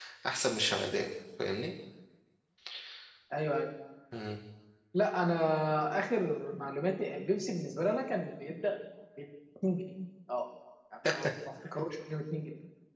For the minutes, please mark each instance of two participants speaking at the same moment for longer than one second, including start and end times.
none

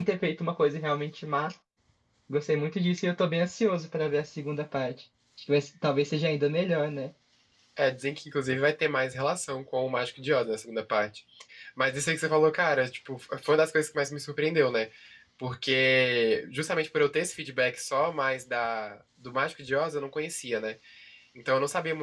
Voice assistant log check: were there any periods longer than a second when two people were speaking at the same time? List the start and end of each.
none

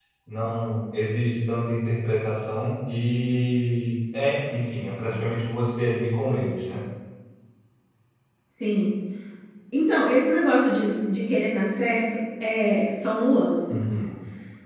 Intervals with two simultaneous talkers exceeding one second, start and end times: none

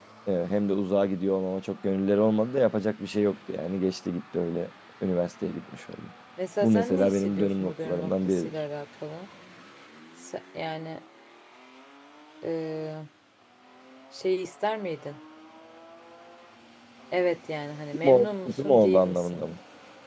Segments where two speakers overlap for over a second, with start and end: 6.6-8.5, 18.0-19.4

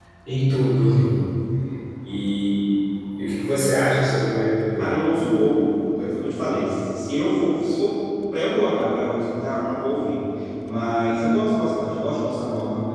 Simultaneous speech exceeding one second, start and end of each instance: none

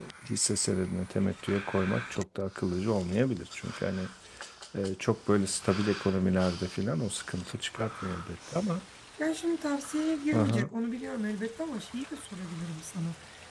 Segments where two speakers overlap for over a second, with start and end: none

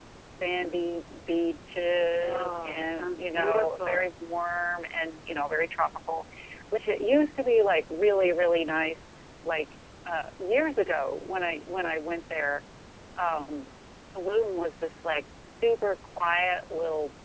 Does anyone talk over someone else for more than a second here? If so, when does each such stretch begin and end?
2.2-4.1

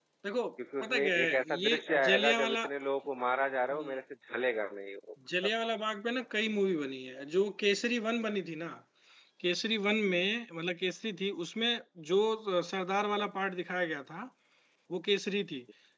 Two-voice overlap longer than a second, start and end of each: 0.8-2.6

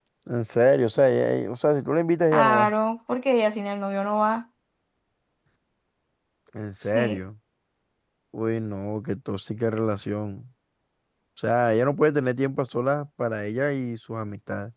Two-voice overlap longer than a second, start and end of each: none

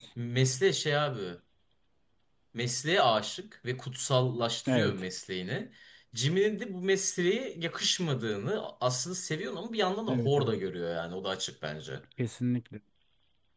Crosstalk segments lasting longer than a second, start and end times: none

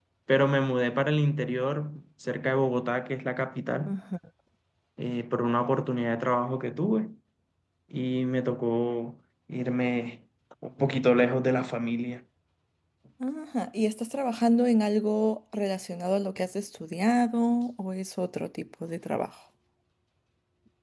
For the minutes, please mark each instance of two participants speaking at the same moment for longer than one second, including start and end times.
none

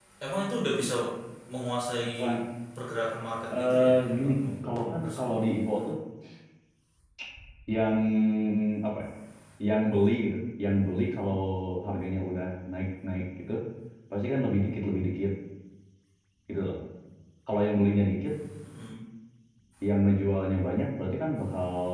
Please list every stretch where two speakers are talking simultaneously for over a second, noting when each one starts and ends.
3.5-5.2

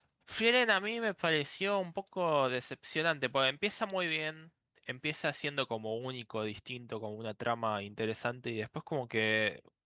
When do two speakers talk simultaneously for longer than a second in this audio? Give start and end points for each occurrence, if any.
none

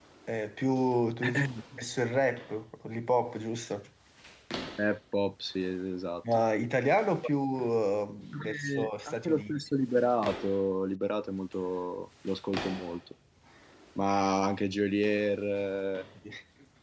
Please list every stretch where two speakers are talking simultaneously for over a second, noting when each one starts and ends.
8.3-9.6

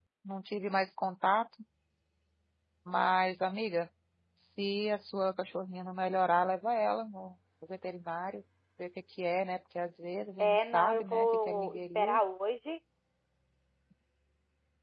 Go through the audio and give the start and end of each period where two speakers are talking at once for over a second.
10.4-12.2

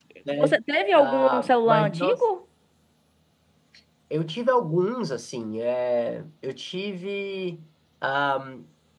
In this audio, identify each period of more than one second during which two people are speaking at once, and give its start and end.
0.9-2.2

